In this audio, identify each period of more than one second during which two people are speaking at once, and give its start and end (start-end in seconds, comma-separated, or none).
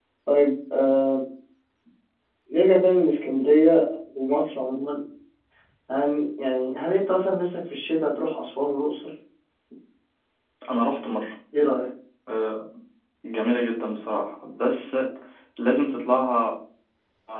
none